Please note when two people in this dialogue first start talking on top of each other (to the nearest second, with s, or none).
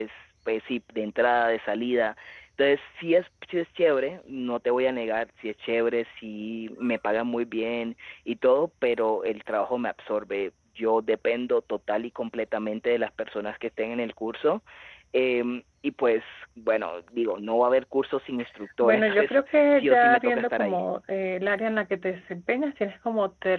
19 s